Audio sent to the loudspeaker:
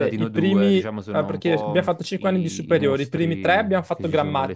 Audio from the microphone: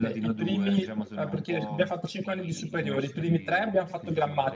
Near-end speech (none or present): none